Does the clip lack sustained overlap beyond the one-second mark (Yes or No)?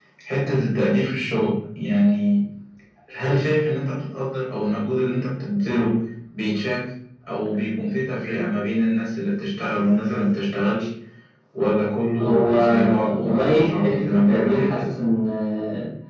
No